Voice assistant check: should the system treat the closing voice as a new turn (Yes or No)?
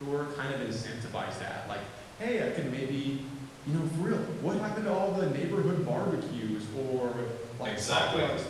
No